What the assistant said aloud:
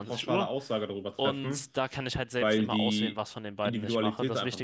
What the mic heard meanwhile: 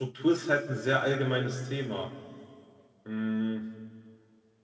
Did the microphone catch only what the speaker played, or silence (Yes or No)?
No